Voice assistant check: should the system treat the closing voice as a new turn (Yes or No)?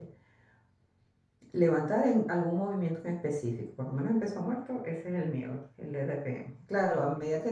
No